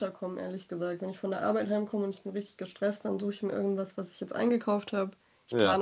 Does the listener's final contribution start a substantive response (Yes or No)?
No